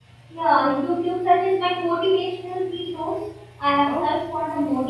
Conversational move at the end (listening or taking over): listening